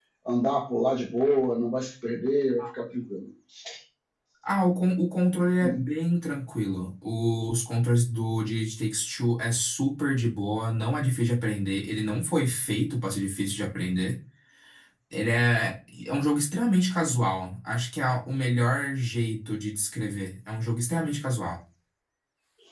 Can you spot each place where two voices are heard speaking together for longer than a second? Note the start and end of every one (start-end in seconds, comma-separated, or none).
none